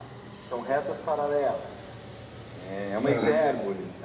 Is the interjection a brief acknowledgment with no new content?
Yes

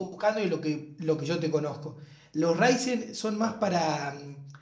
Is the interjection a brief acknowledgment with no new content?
Yes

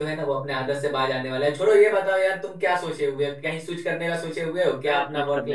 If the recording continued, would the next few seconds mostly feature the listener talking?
Yes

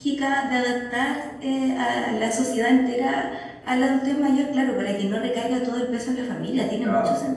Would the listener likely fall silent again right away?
No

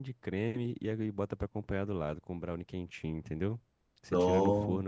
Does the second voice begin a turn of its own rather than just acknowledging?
No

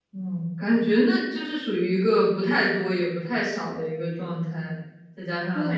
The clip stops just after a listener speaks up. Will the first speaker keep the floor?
No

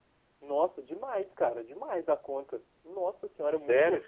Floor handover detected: Yes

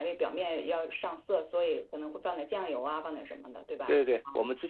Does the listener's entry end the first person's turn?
Yes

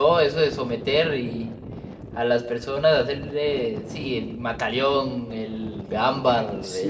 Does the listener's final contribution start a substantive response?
Yes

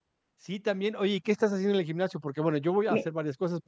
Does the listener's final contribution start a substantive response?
No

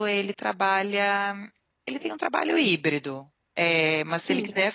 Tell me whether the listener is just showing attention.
Yes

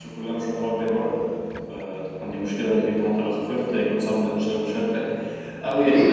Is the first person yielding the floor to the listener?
Yes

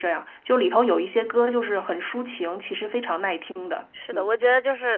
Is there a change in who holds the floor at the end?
Yes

